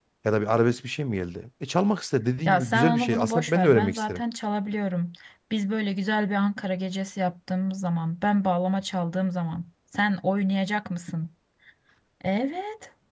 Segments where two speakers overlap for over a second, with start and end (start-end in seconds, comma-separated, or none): 2.5-4.2